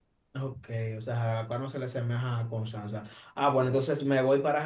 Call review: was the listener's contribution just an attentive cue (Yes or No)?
Yes